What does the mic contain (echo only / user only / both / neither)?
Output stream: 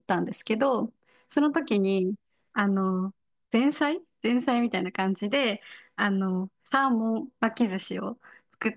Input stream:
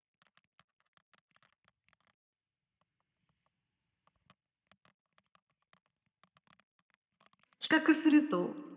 user only